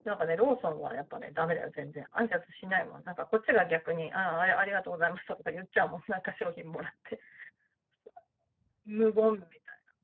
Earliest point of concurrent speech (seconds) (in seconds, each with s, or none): none